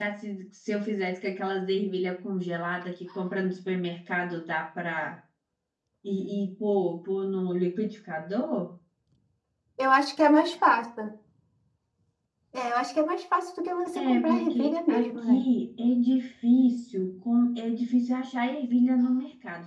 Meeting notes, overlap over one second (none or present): present